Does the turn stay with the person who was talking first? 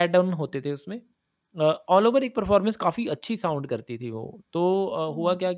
Yes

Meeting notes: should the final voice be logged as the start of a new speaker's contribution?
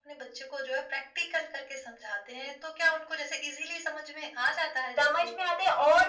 Yes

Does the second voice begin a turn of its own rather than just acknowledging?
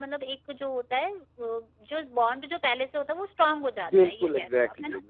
Yes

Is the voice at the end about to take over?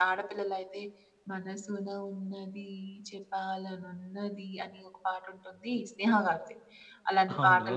No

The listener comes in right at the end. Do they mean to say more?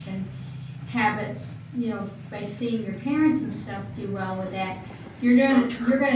No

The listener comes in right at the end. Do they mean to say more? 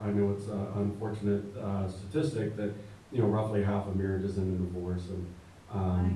No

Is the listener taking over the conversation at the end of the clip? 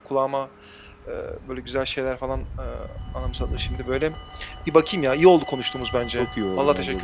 Yes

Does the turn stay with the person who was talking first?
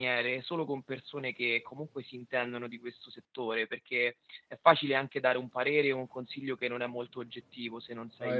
Yes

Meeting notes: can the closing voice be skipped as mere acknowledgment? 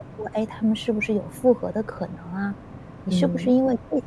Yes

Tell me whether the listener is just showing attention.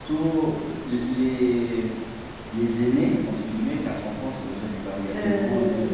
No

